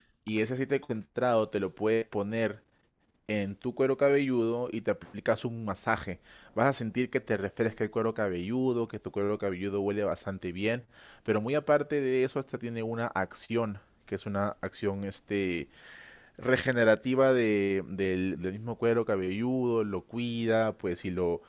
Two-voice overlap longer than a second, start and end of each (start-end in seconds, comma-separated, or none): none